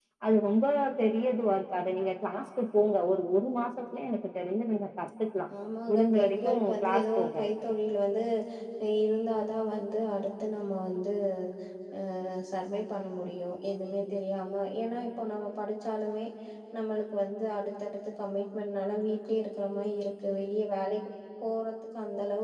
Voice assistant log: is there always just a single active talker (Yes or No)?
No